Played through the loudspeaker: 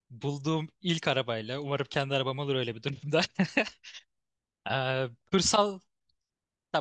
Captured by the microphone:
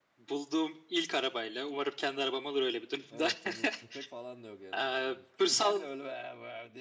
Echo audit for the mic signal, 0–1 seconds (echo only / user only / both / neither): echo only